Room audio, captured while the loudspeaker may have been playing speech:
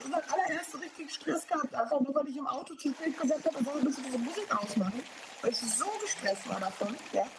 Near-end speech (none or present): none